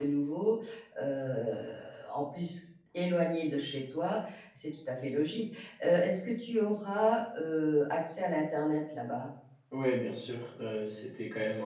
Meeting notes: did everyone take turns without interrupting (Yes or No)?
Yes